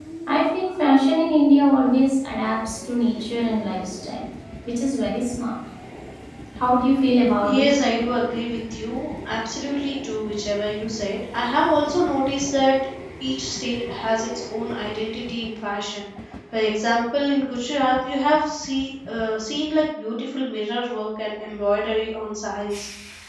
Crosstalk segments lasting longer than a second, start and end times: none

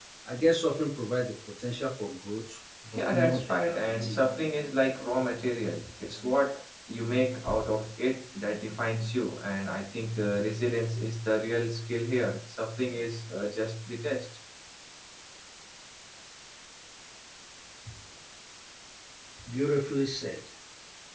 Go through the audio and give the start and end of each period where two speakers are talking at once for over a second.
3.0-4.2

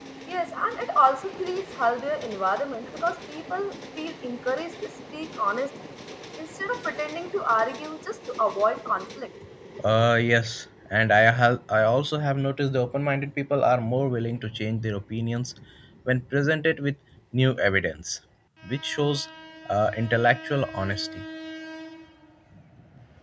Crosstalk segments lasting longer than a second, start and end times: none

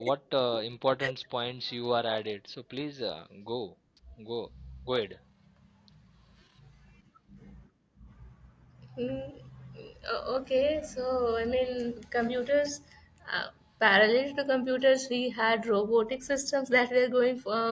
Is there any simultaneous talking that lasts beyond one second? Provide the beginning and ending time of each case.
none

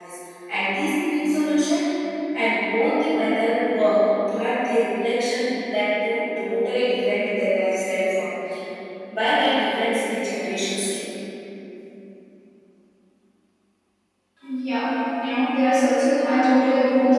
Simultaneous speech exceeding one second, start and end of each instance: none

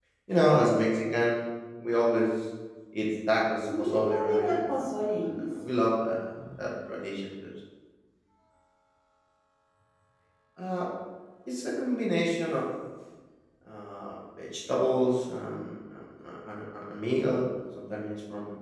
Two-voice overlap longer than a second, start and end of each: 3.8-5.5

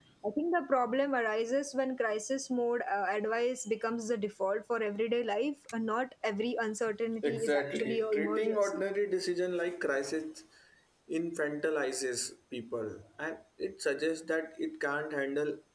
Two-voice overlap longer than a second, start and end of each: 7.2-8.8

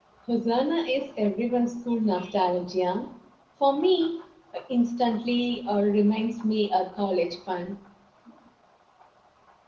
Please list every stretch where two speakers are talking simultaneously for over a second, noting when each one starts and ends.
none

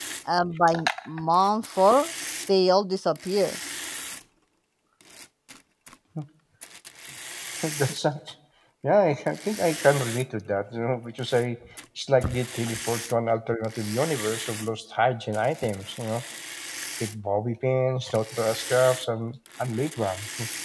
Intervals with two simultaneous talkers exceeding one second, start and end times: none

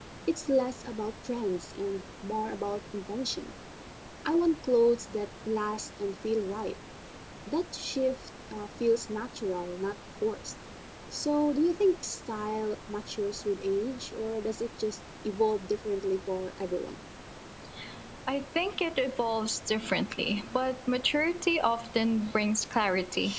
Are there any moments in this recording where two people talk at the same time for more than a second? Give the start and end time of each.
none

